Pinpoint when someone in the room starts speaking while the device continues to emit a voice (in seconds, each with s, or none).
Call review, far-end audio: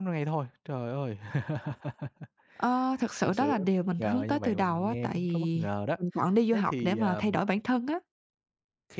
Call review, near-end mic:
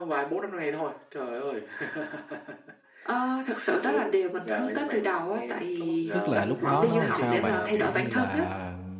6.1 s